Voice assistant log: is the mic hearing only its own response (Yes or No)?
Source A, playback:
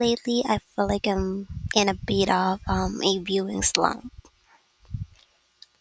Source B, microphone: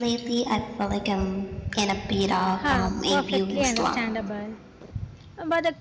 No